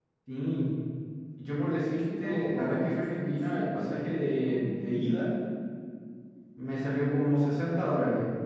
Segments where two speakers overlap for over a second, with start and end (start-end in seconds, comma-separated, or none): 2.0-3.8